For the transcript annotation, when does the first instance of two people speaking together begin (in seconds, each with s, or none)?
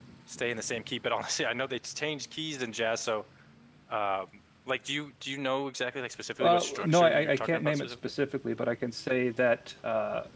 6.4 s